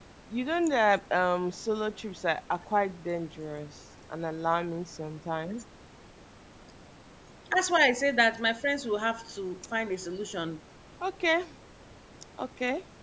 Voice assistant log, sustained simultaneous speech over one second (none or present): none